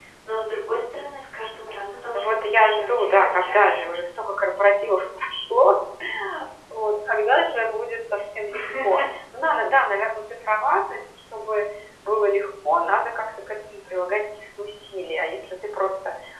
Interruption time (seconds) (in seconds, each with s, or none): 2.1 s